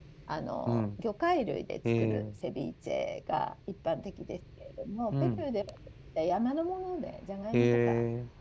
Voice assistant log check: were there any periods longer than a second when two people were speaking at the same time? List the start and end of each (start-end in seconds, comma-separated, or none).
none